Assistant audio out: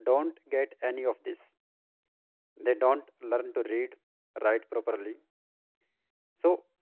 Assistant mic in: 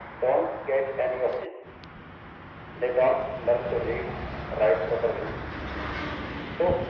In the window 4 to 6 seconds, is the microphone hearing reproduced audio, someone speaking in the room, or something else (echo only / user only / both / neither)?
echo only